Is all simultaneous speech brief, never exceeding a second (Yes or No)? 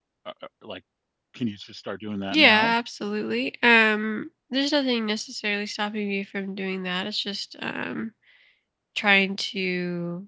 Yes